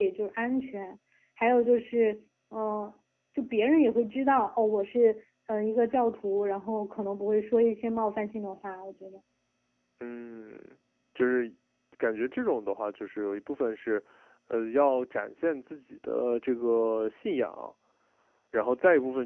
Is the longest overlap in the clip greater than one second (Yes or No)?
No